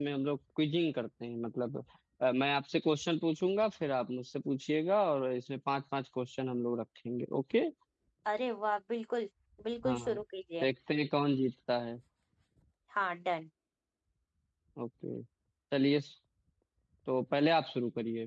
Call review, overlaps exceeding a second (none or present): none